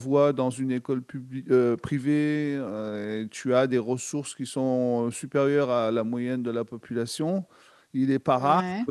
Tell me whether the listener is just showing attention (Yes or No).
Yes